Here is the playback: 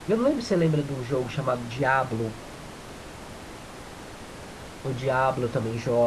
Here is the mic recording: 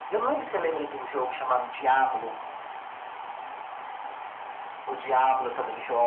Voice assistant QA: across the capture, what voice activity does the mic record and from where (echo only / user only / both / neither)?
echo only